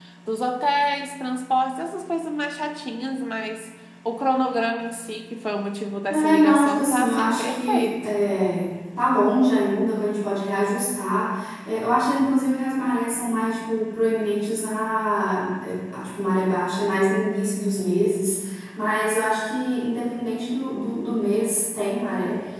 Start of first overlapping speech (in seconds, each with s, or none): 6.1 s